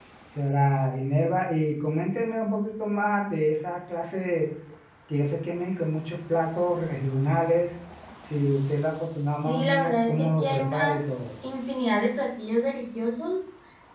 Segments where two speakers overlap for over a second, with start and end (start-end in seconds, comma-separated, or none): 9.4-11.0